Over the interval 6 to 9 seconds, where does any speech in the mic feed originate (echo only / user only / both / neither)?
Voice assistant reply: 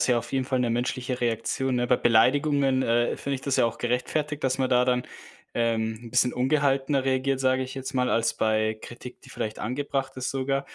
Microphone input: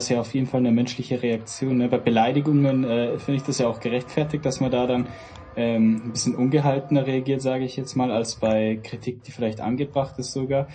echo only